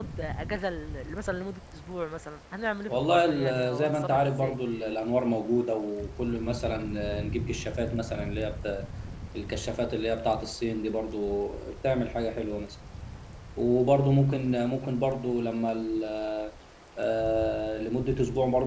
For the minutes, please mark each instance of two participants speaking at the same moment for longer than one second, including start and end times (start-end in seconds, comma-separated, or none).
2.9-4.6